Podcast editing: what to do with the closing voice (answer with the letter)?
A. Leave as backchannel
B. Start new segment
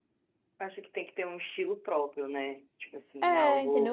B